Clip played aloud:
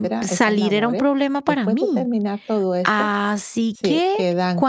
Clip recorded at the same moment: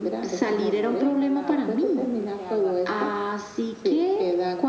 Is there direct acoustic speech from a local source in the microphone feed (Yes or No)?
Yes